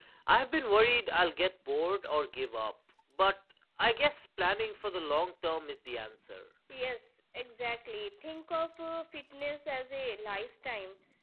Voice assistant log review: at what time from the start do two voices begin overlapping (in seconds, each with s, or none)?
none